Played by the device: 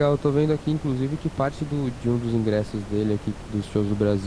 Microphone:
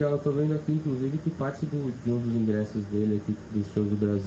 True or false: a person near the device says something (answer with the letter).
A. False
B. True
A